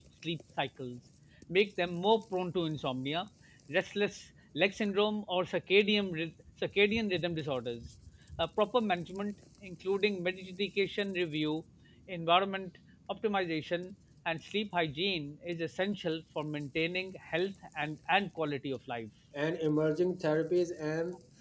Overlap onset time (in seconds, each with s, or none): none